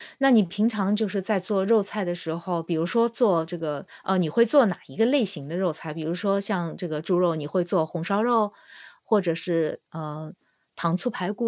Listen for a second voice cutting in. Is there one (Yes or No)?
No